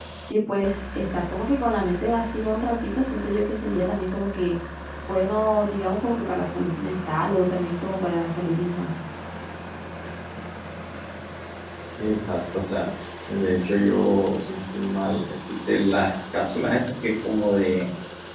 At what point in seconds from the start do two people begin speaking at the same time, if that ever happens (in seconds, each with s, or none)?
none